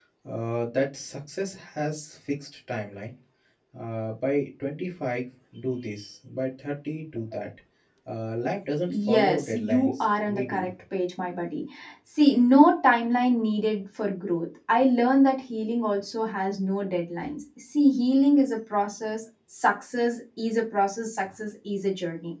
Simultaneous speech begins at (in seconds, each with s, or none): 8.9 s